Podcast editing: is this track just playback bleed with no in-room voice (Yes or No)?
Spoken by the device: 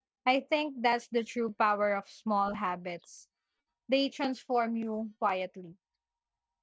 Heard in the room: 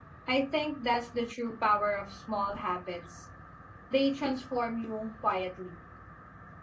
Yes